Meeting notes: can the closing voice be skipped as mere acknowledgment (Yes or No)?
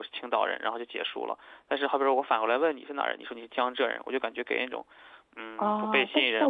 No